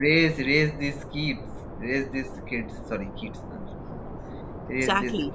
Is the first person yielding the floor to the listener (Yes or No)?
Yes